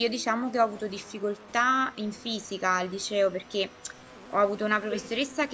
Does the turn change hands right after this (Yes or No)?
No